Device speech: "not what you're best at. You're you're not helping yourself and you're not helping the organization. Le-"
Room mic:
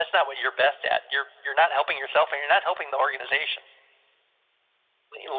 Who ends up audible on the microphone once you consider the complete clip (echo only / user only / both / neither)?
echo only